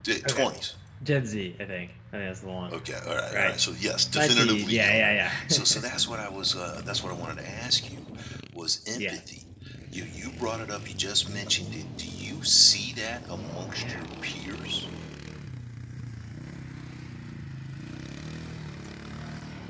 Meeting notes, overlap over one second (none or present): present